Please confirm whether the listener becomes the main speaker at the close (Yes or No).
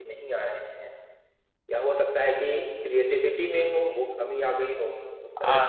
Yes